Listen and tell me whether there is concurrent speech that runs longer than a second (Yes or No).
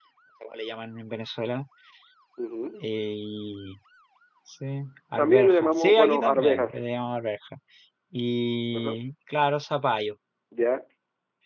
Yes